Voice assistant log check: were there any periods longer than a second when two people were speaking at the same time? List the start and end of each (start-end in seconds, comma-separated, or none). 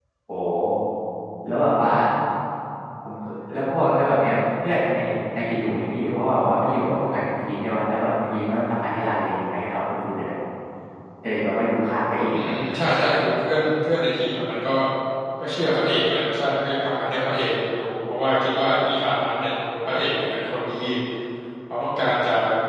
none